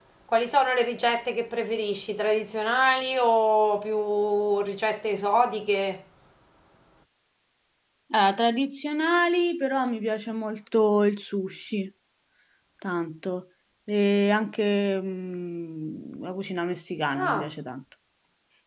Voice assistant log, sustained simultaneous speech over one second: none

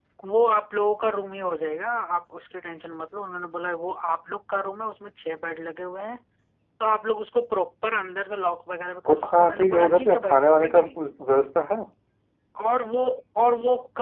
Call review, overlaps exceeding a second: present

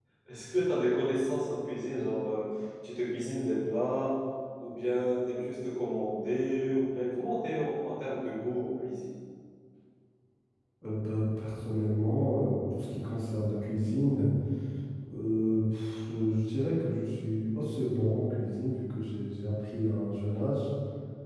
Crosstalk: none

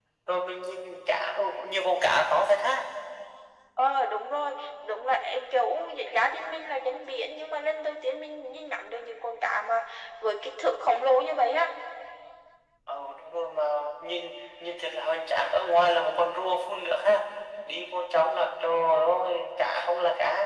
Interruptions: none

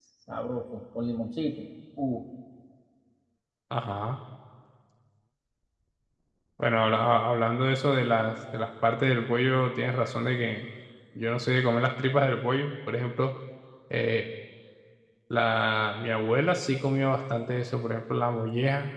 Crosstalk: none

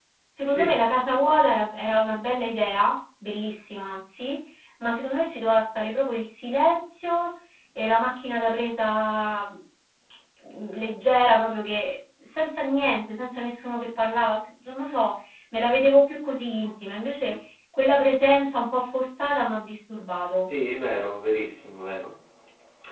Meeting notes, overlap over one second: none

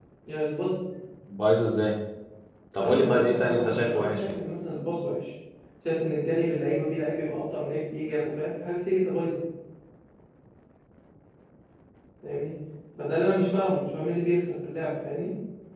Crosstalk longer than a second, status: present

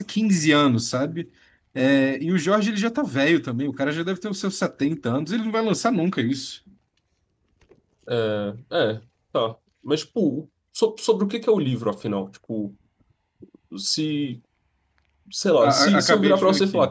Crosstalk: present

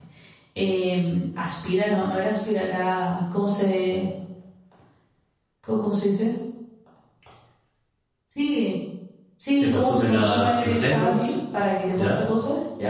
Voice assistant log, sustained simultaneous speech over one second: present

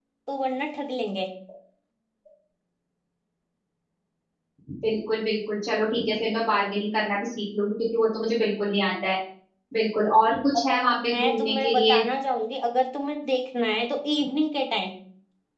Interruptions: present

